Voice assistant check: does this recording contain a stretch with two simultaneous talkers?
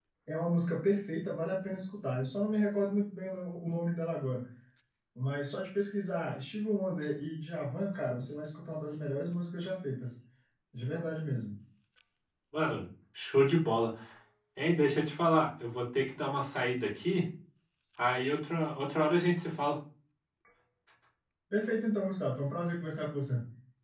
No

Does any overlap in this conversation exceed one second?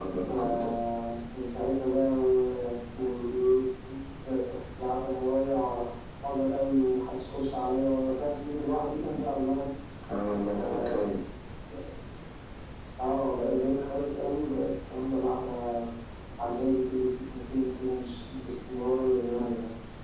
No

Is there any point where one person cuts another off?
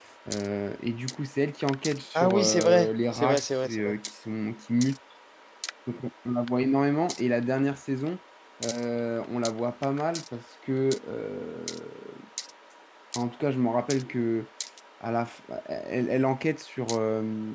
Yes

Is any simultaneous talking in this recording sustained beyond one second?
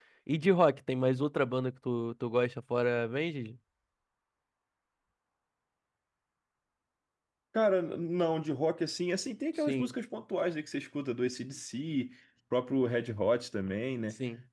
No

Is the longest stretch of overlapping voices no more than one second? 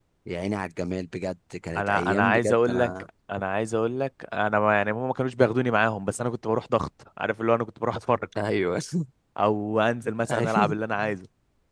No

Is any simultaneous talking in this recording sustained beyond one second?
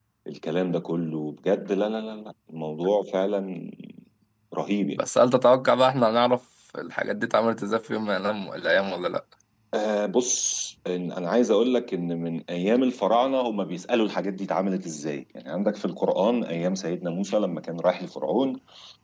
No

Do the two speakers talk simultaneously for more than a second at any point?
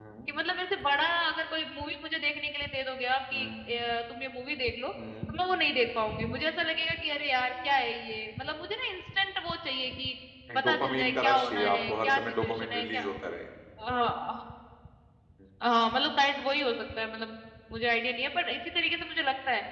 Yes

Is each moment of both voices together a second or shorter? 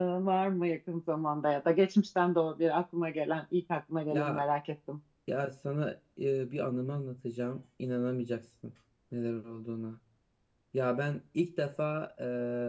Yes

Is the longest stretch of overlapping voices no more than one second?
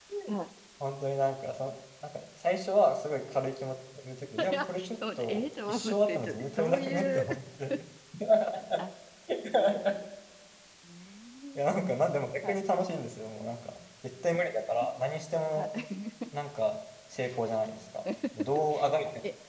No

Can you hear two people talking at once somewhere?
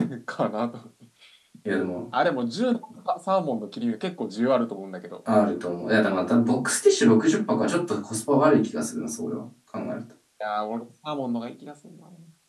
No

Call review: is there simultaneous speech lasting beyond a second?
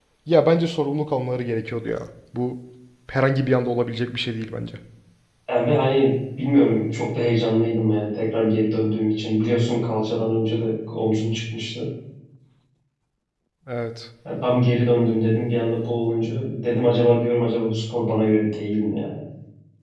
No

